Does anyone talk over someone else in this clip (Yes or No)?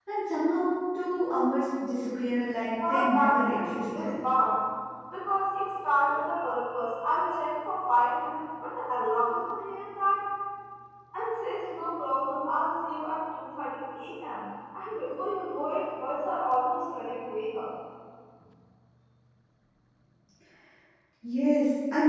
Yes